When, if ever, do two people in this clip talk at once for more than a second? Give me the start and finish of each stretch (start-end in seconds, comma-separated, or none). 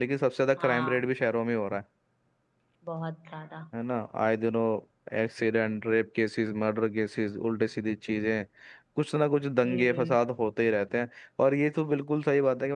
none